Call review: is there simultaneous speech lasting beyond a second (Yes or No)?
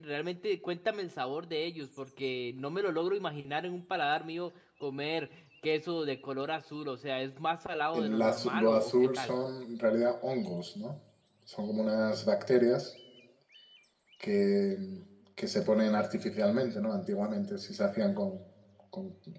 Yes